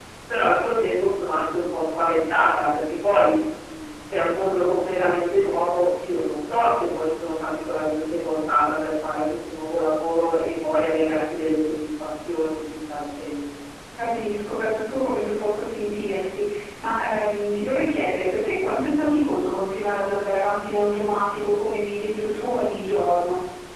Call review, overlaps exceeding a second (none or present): none